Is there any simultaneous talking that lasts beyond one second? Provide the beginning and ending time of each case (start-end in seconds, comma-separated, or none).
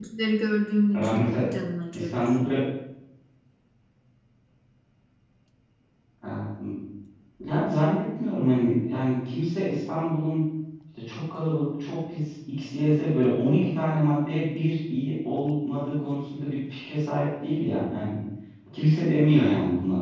none